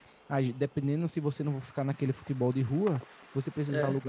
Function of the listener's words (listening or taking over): listening